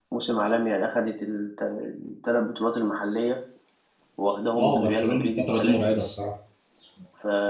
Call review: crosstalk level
present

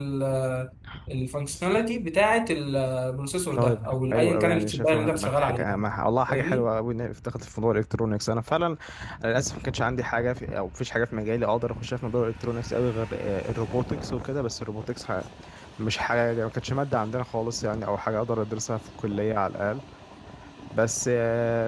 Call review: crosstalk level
present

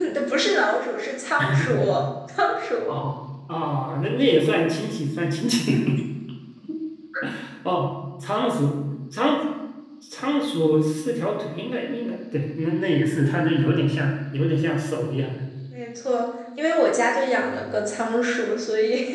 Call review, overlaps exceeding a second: none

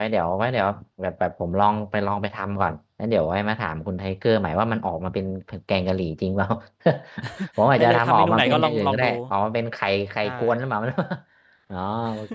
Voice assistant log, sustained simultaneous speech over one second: present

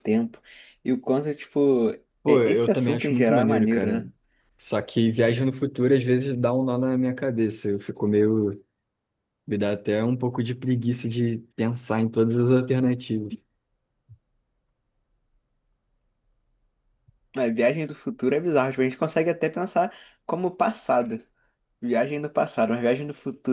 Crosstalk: present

